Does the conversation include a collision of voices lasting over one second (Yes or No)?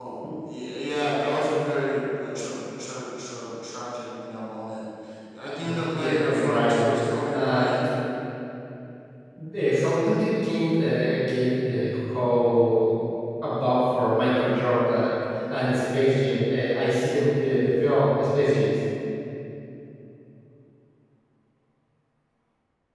Yes